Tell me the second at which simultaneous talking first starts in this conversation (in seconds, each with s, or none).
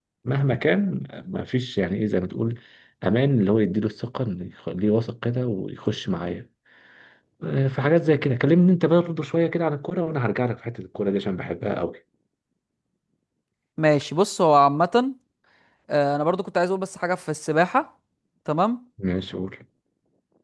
none